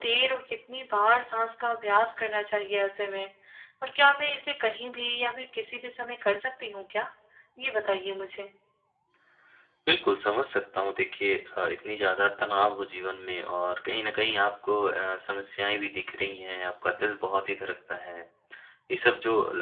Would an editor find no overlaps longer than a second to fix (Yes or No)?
Yes